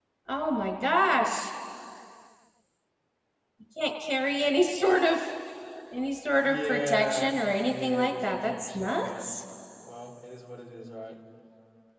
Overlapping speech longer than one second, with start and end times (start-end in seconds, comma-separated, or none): 6.4-9.2